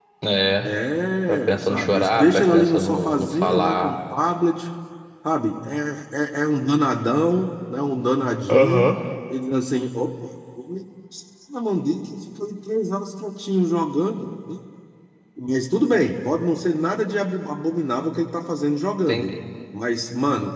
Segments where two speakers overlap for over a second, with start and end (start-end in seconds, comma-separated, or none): 1.3-3.9